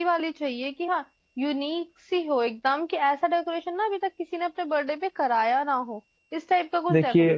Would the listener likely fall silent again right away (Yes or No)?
No